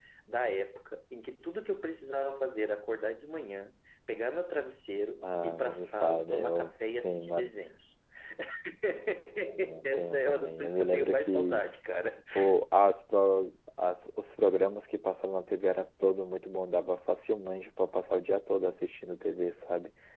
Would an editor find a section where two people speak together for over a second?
Yes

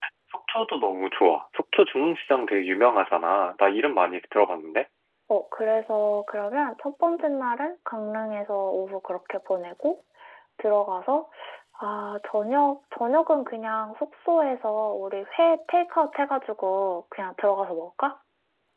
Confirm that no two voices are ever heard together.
Yes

